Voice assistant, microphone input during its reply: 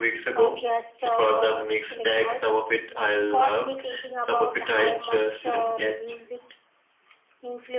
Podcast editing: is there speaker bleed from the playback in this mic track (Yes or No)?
Yes